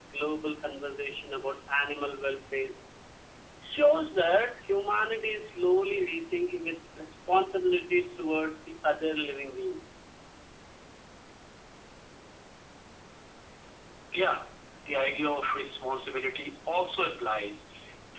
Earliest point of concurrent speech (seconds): none

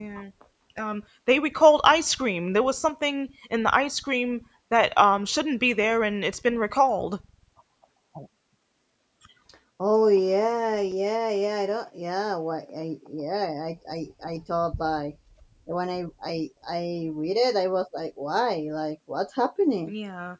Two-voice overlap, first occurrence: none

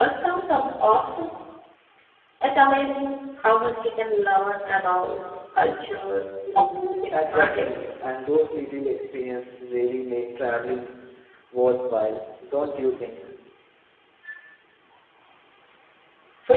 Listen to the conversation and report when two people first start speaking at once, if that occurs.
6.7 s

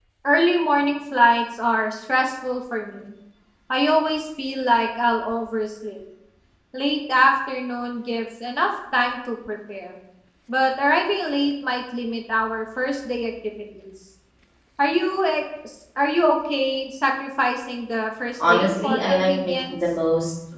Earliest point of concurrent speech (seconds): 18.4 s

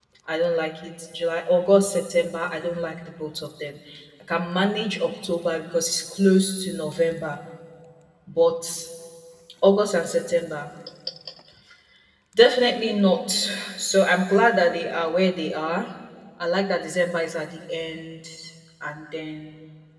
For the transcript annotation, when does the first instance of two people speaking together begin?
none

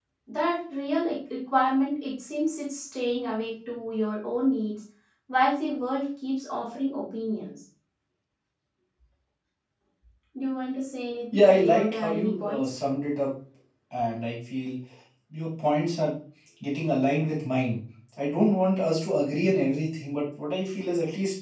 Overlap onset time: 11.3 s

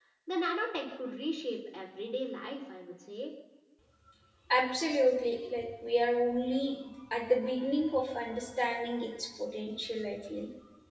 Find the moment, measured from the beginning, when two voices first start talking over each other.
none

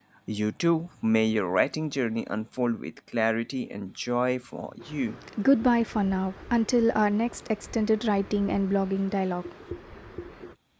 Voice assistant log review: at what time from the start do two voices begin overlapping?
none

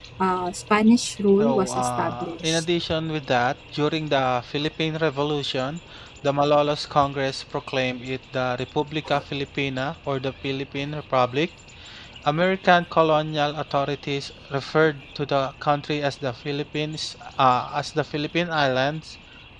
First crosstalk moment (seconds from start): 1.4 s

